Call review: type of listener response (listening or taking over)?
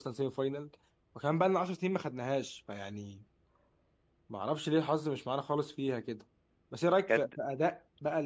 listening